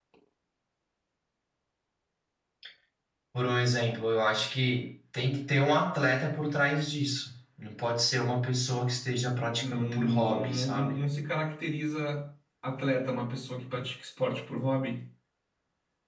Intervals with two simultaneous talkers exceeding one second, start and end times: 9.6-11.0

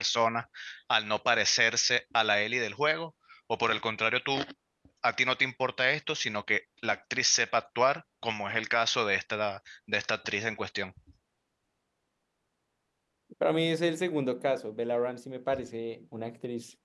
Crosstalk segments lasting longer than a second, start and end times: none

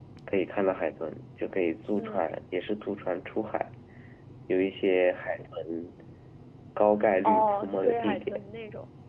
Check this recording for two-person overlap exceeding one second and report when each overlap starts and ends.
7.2-8.5

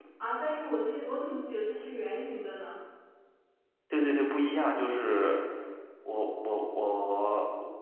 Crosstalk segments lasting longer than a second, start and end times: none

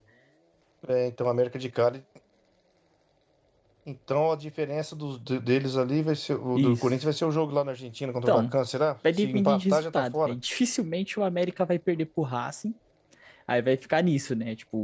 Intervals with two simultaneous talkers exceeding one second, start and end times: 9.2-10.4

